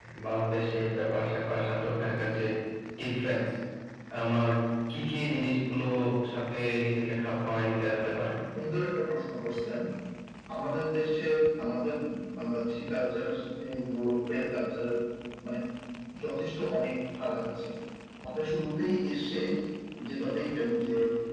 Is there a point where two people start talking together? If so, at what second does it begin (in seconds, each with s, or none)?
none